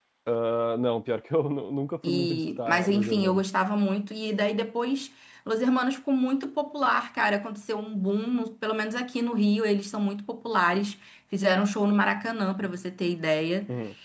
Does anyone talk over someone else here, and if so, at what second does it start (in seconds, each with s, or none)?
2.0 s